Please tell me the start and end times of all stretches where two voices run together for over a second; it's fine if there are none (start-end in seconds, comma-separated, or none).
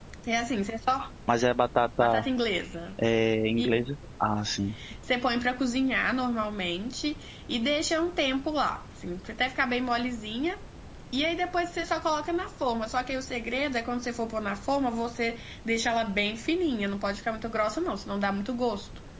none